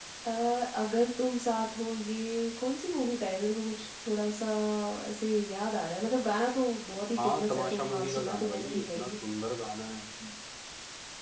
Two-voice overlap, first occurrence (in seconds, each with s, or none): 7.2 s